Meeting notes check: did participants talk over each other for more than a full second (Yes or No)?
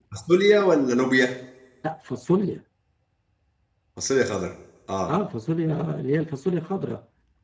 No